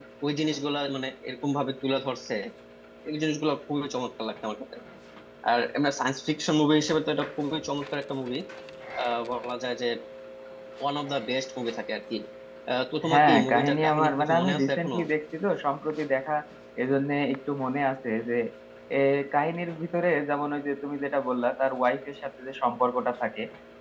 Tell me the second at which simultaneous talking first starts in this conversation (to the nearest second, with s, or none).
13 s